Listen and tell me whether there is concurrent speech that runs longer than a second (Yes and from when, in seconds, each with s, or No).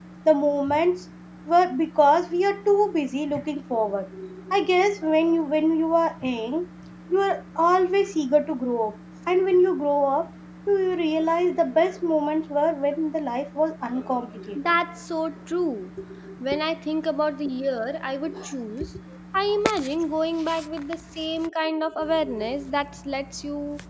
No